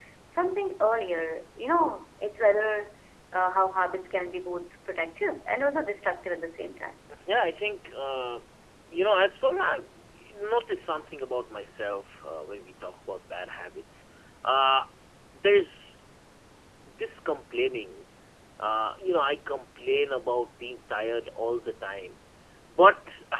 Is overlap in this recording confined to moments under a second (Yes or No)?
Yes